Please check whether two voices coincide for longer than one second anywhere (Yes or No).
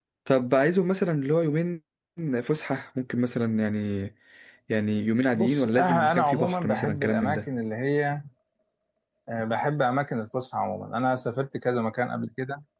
Yes